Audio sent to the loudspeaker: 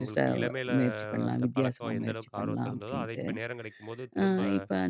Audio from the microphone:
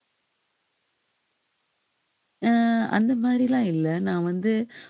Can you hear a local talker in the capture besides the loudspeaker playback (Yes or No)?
Yes